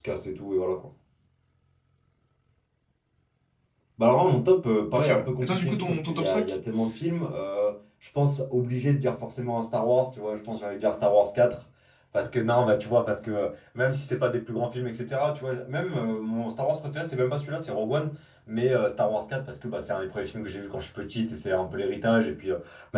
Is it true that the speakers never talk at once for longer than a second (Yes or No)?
No